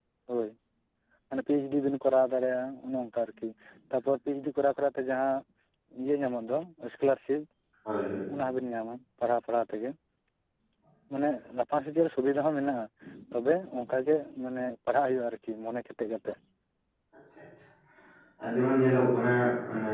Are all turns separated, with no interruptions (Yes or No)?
Yes